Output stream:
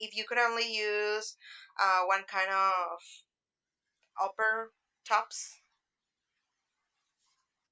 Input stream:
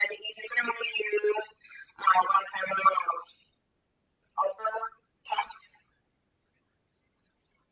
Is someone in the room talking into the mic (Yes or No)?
No